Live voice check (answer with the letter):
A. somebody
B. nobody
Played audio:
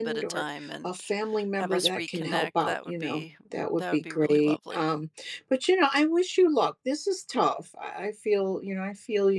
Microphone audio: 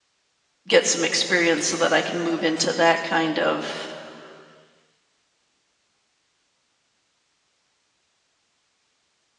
A